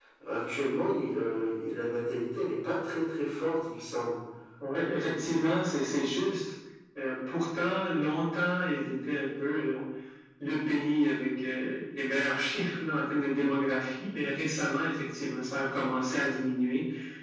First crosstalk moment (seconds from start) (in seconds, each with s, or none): none